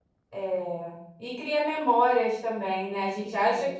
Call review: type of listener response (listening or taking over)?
listening